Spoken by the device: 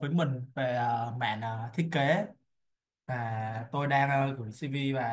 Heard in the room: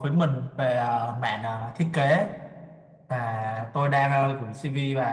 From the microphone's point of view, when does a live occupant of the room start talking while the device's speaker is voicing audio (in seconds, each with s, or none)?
none